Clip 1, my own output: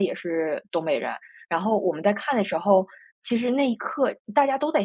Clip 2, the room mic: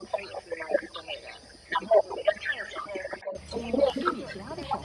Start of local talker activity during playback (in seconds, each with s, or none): 3.5 s